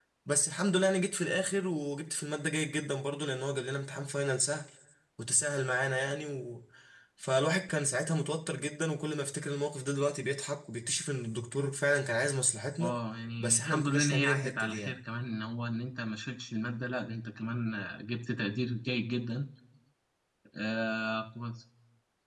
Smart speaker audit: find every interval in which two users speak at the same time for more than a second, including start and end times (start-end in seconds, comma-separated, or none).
13.4-15.0